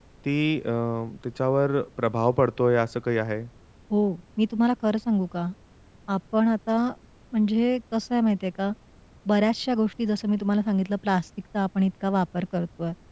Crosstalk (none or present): none